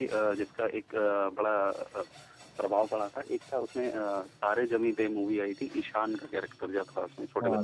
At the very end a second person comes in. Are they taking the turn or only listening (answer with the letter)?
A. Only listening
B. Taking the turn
B